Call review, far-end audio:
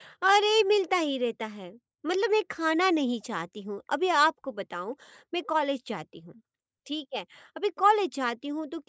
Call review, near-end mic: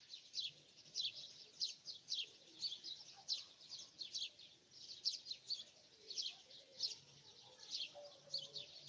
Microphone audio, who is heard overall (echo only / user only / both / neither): neither